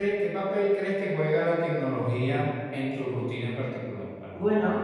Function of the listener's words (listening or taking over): taking over